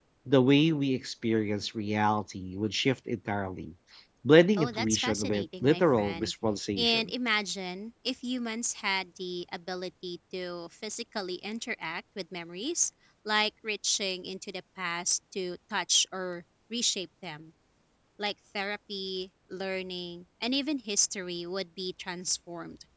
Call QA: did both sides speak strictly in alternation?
No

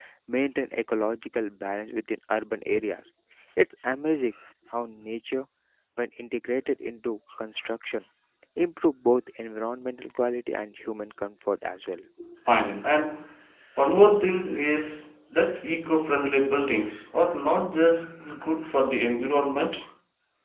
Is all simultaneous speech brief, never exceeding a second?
Yes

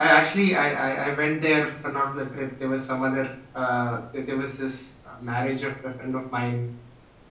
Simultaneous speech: No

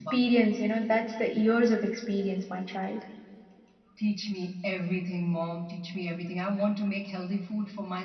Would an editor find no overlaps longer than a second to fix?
Yes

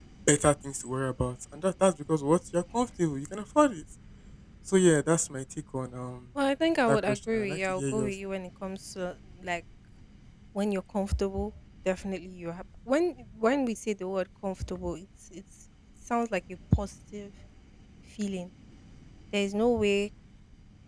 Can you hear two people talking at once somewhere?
Yes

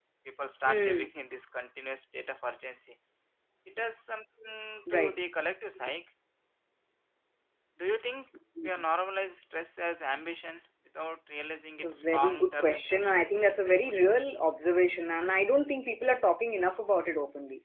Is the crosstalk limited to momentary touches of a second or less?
No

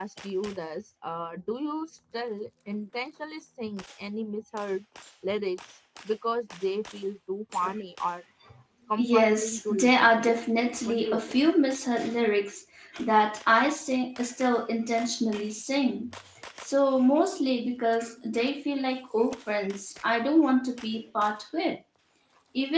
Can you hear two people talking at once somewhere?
Yes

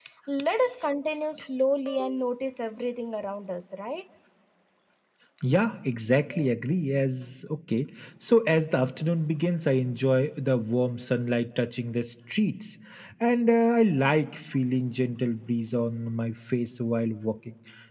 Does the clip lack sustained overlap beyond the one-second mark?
Yes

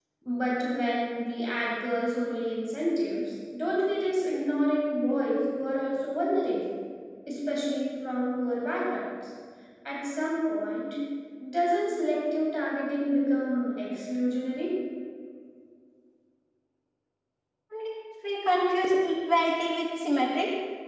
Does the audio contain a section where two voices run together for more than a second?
No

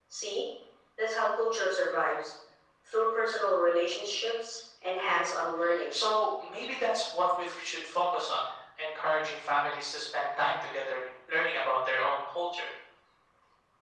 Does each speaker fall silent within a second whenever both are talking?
Yes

